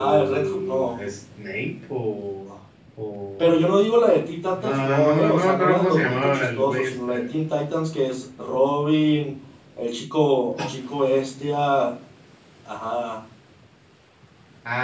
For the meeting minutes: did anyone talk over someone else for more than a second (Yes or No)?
Yes